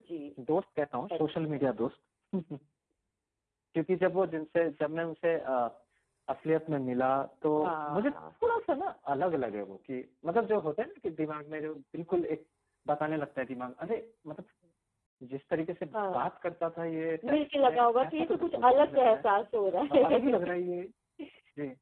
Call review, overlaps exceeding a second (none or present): present